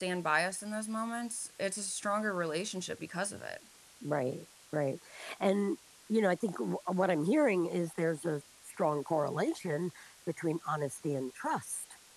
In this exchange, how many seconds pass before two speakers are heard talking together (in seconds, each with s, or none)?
none